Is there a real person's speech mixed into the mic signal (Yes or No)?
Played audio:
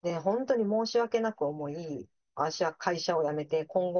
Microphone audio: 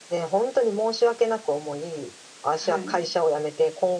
Yes